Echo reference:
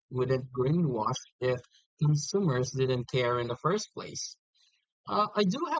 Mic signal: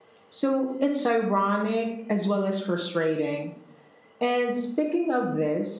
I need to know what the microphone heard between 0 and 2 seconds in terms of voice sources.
user only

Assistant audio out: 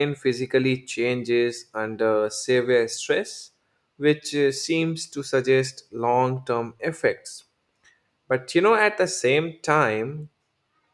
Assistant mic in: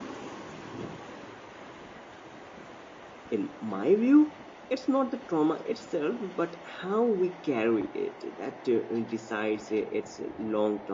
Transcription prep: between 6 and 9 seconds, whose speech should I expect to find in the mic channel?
user only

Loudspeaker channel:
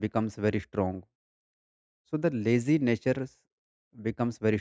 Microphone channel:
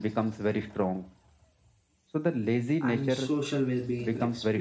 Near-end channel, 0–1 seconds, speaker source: echo only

